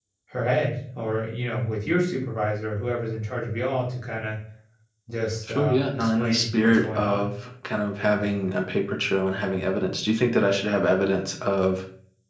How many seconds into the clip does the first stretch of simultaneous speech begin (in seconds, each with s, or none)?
5.5 s